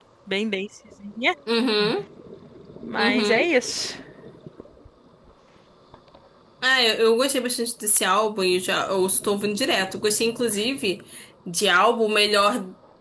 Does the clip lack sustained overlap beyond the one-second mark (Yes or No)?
Yes